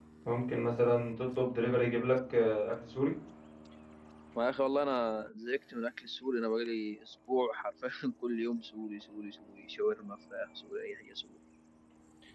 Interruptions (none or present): none